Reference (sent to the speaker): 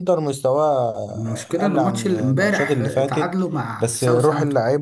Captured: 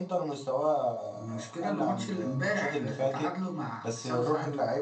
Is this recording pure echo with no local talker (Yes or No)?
Yes